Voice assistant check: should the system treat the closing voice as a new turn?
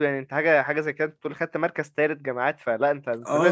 Yes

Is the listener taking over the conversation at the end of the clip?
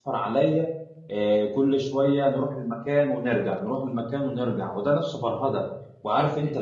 No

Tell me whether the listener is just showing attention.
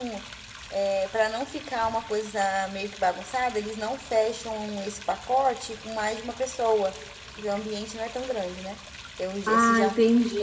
No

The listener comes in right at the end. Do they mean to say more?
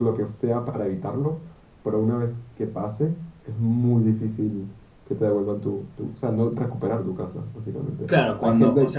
Yes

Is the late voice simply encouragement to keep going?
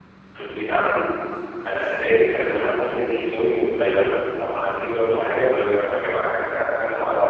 Yes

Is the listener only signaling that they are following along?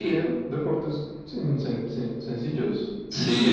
No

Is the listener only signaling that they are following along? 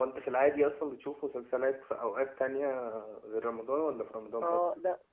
No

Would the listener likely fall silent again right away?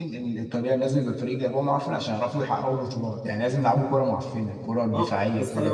No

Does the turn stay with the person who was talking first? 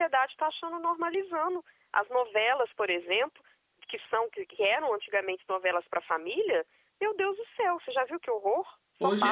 No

